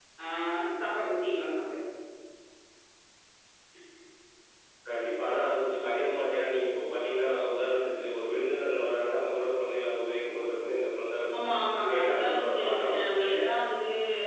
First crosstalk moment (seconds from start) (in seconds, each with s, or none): 11.9 s